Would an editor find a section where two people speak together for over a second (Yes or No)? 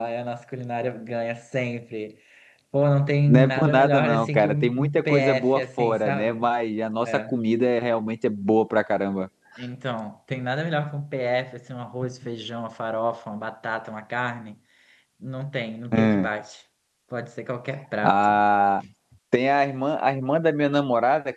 Yes